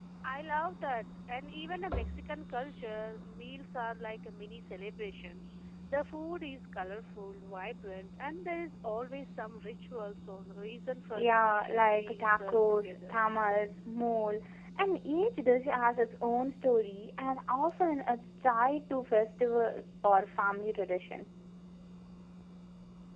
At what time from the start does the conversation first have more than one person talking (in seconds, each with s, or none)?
11.2 s